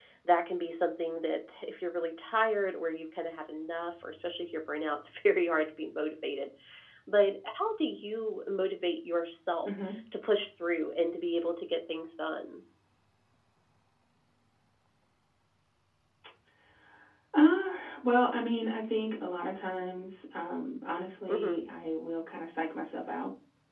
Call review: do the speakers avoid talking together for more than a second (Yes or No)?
Yes